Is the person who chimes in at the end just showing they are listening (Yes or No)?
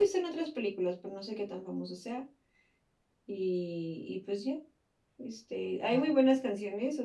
Yes